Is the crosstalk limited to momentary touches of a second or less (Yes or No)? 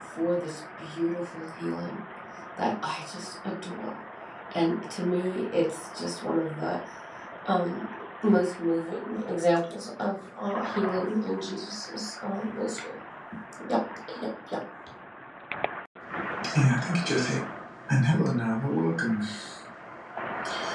Yes